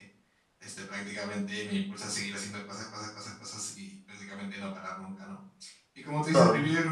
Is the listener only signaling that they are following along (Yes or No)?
Yes